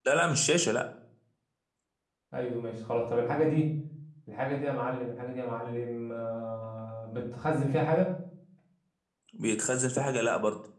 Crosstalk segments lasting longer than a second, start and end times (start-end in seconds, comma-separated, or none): none